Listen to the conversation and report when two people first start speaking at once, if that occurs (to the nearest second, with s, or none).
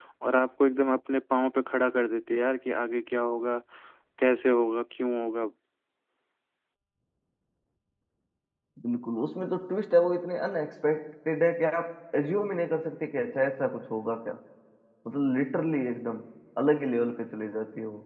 none